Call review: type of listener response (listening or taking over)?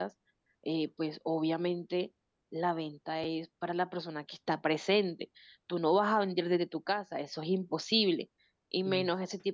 listening